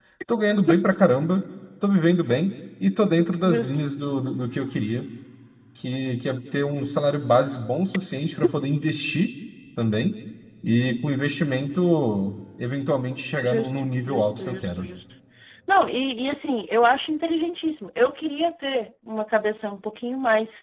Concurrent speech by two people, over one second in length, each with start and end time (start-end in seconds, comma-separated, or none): 13.4-14.9